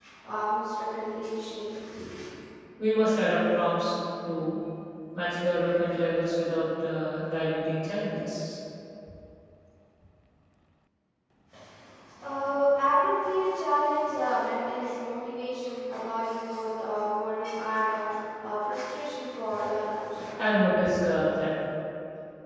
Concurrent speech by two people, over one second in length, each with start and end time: none

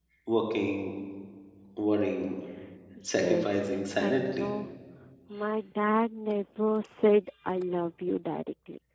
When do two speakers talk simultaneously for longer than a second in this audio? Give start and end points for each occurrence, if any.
3.0-4.5

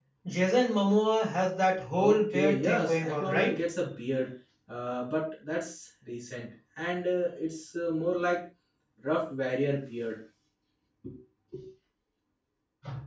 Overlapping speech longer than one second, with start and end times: 2.0-3.6

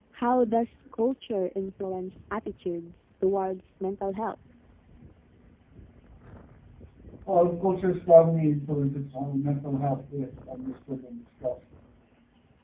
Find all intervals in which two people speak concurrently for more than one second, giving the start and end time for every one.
none

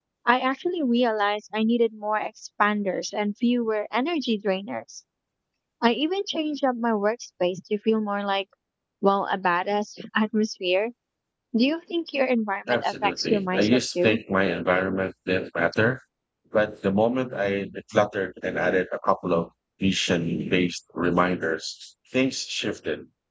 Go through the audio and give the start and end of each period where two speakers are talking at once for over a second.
12.7-14.2

